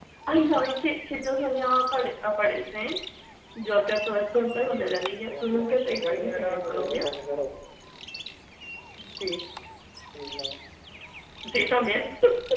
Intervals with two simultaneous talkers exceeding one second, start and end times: 4.7-7.1

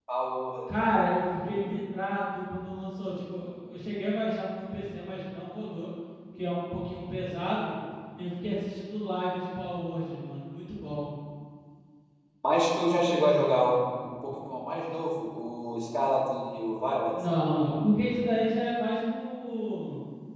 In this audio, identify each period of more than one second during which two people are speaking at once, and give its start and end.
none

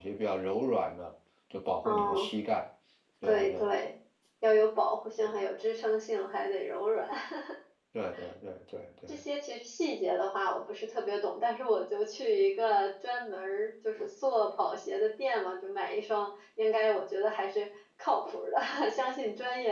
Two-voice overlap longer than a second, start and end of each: none

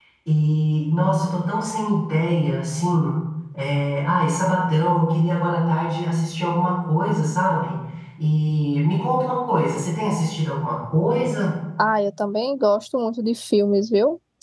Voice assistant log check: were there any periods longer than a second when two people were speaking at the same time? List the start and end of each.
none

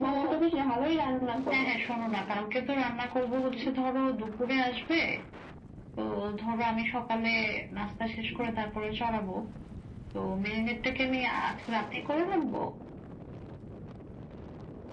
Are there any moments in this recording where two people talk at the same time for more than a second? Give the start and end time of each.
none

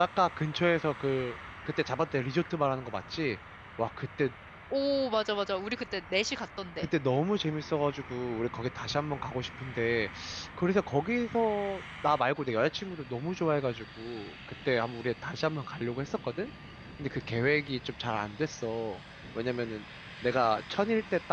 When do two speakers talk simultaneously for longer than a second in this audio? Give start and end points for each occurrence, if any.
none

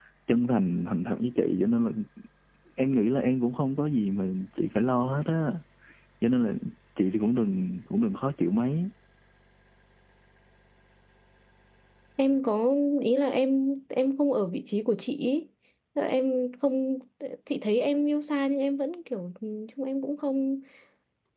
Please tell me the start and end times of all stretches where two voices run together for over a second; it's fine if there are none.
none

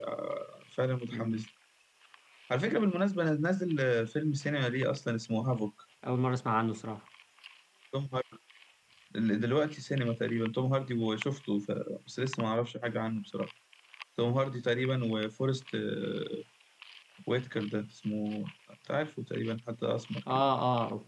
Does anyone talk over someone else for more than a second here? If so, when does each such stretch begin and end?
none

